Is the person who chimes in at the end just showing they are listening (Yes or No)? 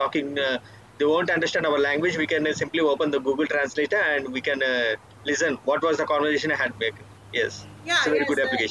No